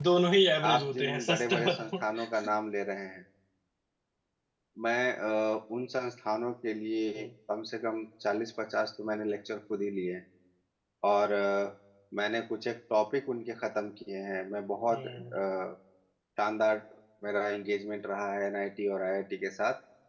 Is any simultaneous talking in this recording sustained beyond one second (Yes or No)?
Yes